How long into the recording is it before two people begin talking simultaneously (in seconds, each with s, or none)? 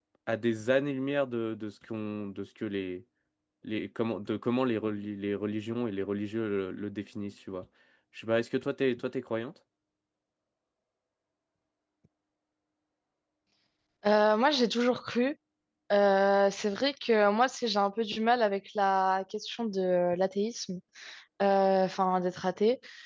none